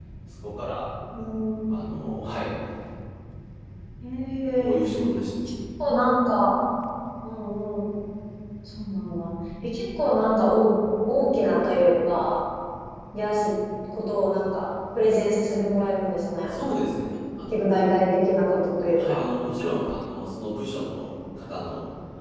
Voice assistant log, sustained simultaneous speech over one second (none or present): none